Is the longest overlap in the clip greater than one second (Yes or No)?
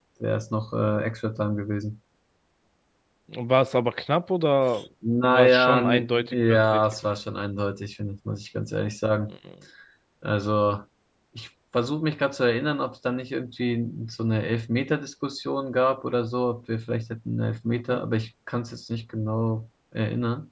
Yes